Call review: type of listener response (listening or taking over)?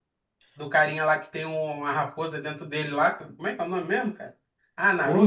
taking over